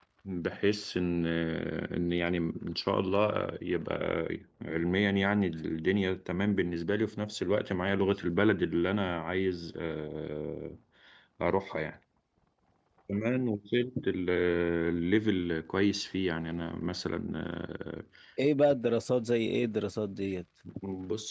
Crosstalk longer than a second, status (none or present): none